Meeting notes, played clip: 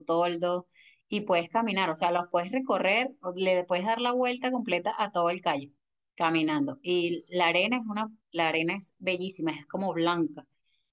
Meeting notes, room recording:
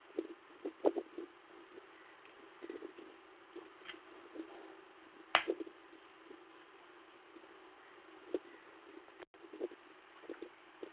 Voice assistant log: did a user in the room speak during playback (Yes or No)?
No